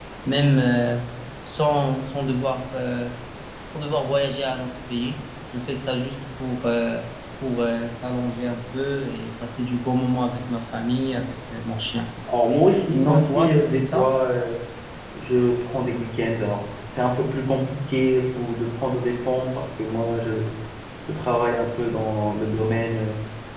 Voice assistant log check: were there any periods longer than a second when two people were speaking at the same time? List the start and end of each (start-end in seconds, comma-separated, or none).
12.9-14.1